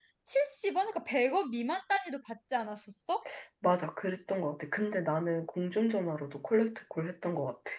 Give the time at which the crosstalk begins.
none

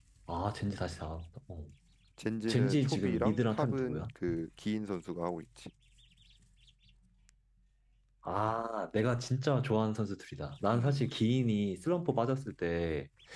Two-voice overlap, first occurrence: 2.5 s

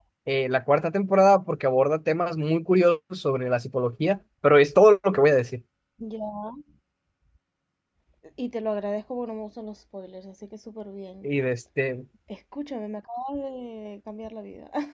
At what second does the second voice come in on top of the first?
none

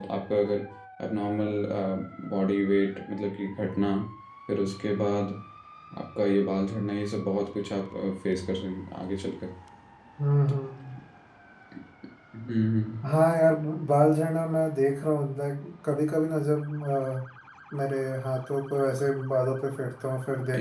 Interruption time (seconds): none

